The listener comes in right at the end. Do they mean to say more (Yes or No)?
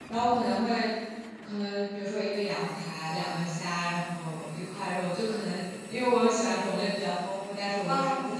No